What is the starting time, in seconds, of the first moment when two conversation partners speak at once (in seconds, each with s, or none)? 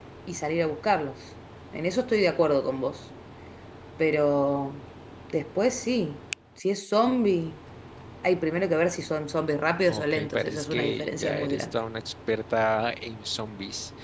9.9 s